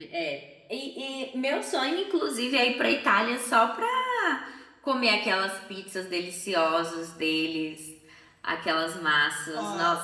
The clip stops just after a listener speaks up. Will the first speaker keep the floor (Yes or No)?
No